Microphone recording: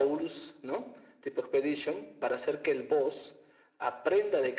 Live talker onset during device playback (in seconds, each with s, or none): none